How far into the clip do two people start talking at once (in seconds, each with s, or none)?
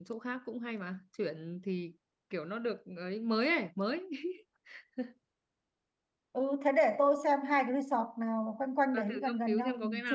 8.9 s